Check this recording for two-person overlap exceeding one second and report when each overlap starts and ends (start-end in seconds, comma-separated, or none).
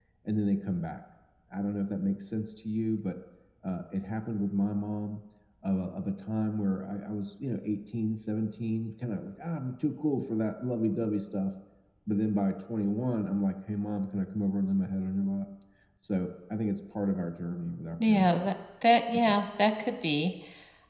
none